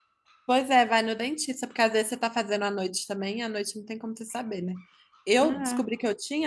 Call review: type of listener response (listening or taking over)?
listening